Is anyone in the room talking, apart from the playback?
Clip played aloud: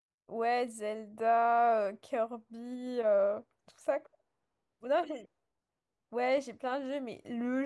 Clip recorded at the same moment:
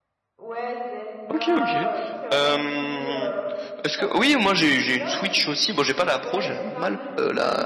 Yes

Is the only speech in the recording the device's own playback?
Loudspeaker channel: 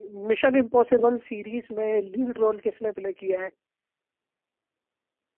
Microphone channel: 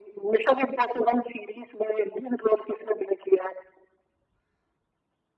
Yes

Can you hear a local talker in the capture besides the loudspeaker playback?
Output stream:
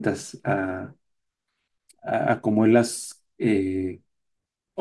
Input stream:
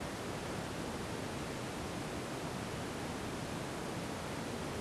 No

